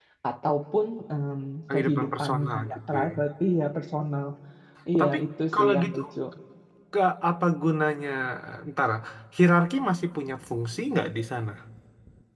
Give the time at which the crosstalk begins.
1.7 s

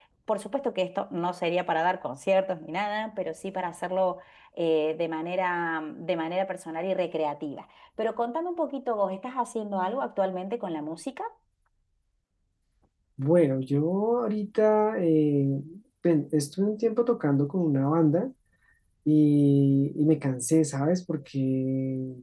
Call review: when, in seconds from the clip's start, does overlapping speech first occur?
none

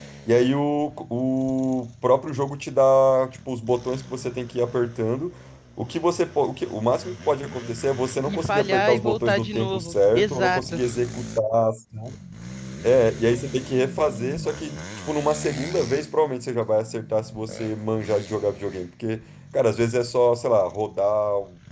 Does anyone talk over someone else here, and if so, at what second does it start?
8.2 s

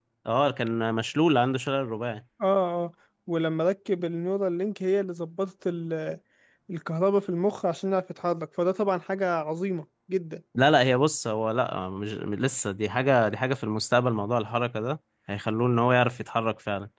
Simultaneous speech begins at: none

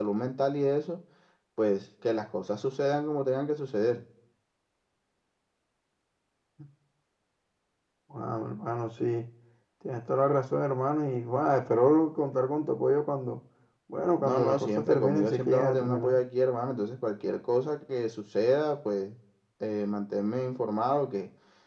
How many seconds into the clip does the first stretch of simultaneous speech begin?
14.2 s

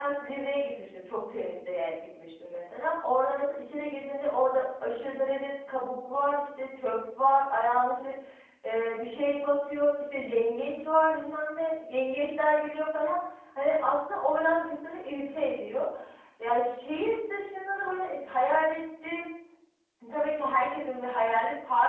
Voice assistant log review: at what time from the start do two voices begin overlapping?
none

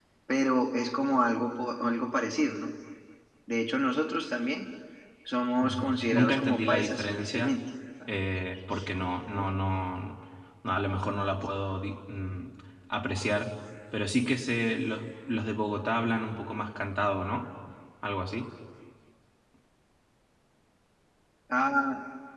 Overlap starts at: 5.6 s

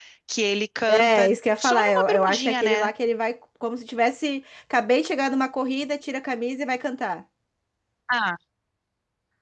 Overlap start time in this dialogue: 0.9 s

